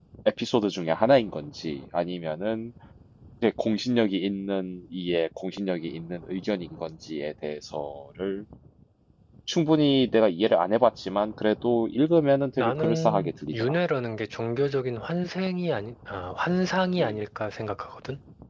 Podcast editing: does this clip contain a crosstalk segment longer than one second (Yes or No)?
Yes